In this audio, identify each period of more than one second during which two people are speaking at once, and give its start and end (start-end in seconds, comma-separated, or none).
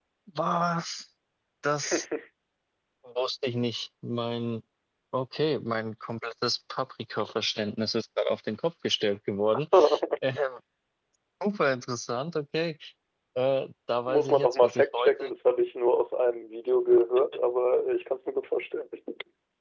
14.0-15.3